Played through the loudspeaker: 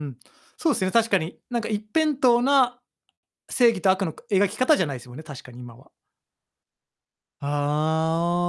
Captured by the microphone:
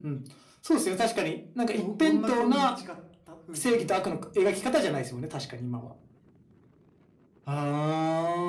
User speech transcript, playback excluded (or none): どどんなかうに違った風に見えました？